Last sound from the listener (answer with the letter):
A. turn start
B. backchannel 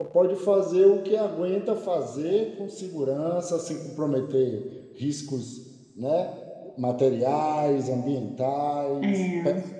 B